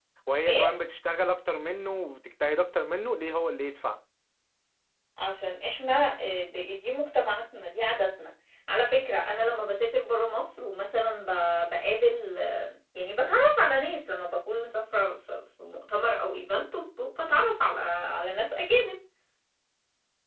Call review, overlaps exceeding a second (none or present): none